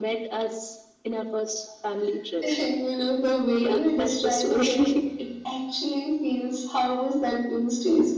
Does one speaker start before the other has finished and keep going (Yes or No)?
Yes